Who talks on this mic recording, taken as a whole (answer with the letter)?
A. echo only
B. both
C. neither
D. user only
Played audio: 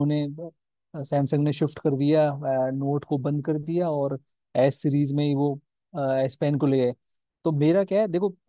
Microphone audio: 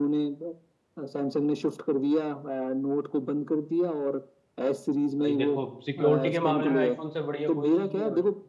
B